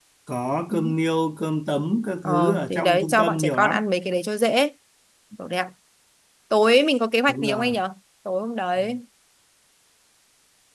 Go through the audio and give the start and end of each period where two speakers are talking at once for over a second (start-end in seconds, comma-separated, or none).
2.2-3.8